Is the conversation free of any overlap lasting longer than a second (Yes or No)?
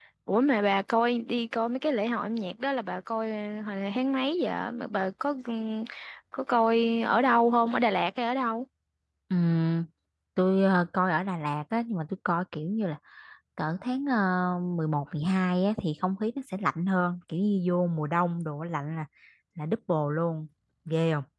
Yes